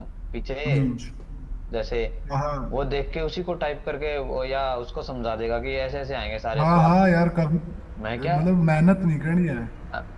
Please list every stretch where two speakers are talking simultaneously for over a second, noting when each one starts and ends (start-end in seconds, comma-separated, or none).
none